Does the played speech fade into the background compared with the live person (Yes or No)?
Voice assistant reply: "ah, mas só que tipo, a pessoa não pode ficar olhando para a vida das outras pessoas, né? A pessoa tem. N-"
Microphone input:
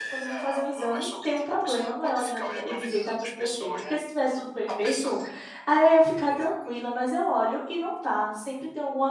Yes